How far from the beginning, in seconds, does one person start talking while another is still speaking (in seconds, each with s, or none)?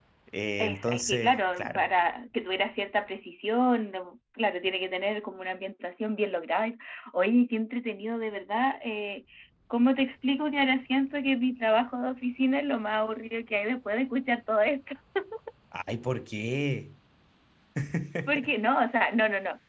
0.6 s